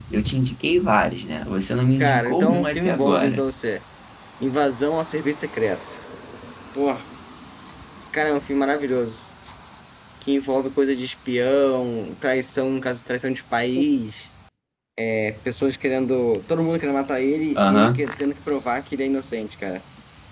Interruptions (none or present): present